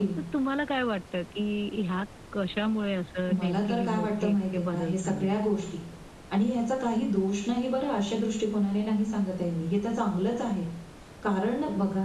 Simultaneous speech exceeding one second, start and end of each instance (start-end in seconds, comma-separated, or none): 3.4-5.4